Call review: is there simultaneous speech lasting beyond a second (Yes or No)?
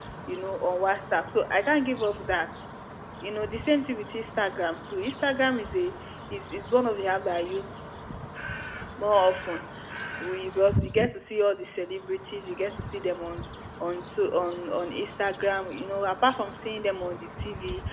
No